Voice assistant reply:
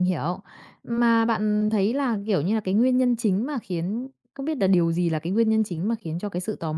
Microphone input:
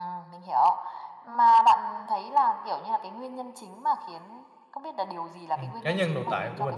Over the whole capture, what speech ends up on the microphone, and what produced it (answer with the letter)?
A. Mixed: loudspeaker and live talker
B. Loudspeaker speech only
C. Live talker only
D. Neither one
A